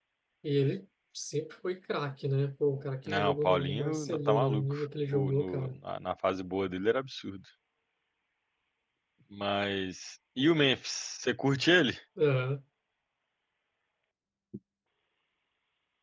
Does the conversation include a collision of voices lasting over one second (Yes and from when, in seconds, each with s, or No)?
Yes, from 3.1 s